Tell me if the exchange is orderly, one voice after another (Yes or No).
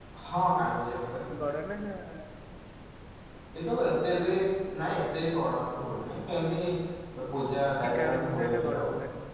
No